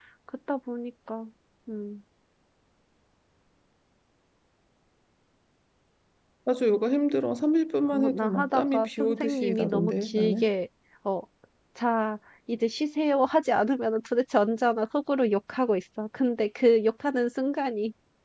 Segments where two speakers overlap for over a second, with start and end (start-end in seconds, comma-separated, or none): 7.9-10.5